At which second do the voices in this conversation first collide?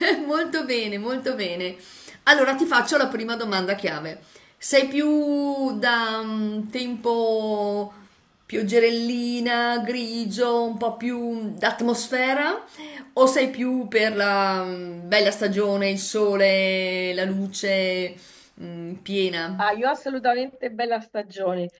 none

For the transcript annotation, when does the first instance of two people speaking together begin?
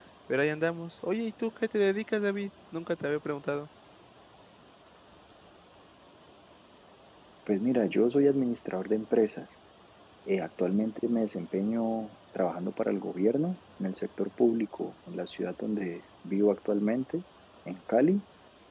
none

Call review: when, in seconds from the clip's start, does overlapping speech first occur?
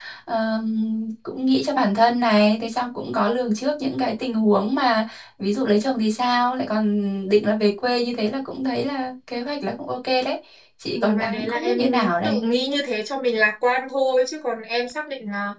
10.9 s

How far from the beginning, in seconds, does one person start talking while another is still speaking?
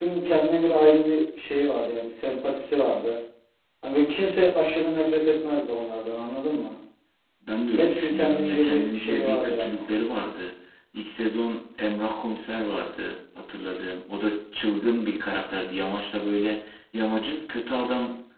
7.8 s

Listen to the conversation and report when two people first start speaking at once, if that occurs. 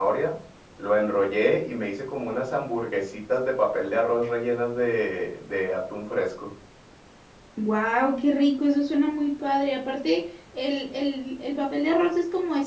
none

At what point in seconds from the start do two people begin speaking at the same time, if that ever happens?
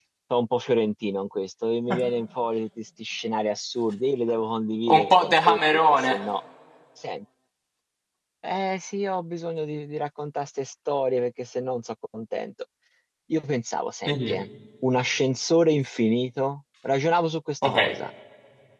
5.0 s

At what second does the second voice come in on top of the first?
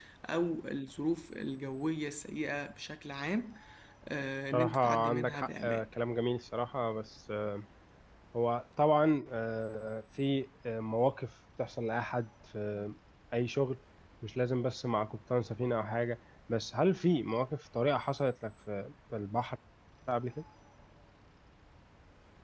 4.5 s

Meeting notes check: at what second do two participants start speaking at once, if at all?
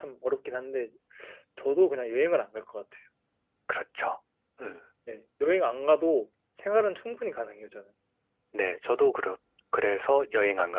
none

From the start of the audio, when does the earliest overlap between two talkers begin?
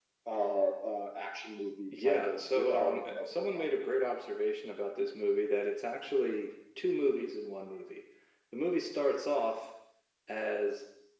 1.9 s

